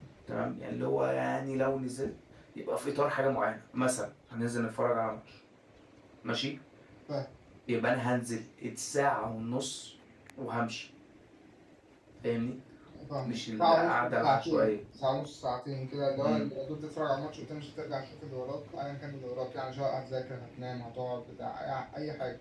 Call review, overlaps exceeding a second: present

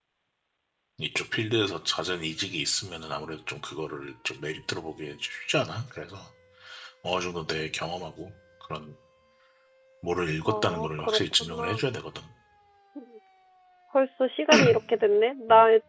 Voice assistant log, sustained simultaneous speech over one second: present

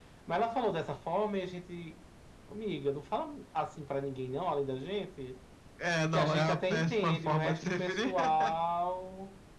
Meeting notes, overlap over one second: present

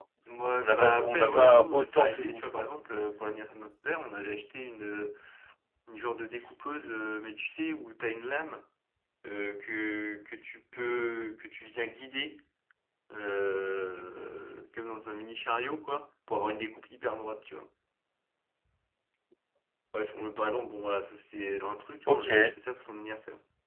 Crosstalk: present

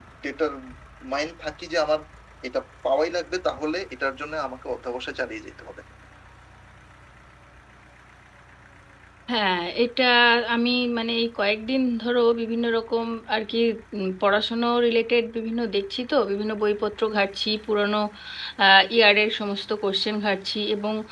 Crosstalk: none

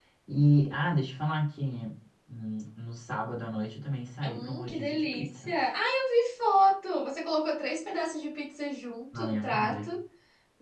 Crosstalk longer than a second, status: present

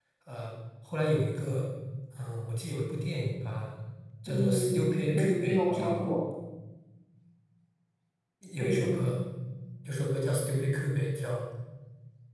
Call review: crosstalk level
present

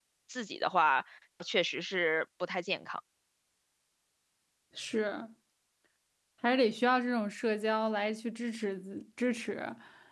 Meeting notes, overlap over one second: none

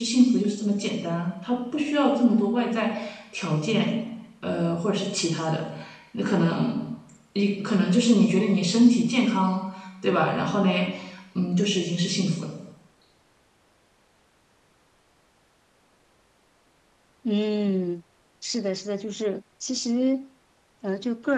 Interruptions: none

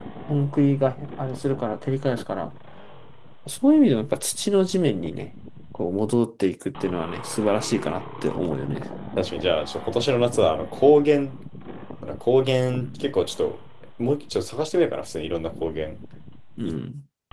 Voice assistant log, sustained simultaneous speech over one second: none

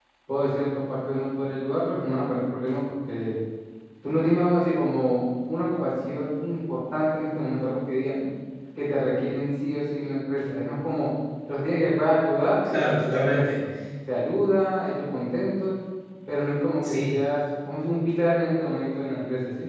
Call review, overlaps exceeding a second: none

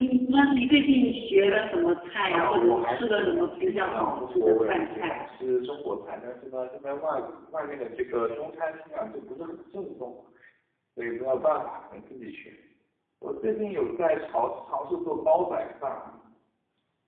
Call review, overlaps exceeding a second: present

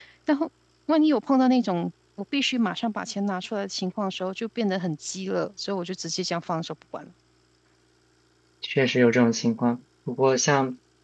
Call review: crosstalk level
none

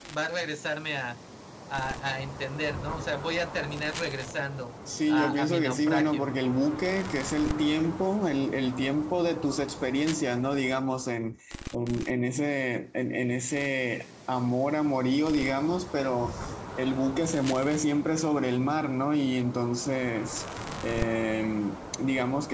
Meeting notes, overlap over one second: present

